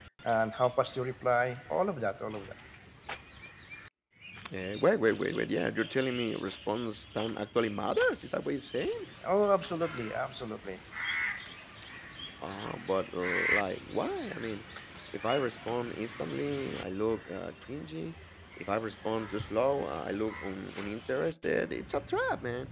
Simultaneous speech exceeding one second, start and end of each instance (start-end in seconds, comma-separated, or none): none